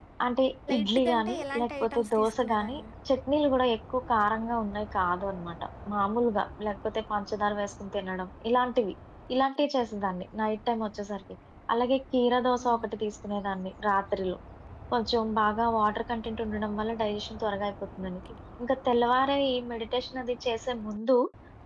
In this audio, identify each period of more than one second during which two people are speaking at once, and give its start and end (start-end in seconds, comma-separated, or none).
0.7-2.8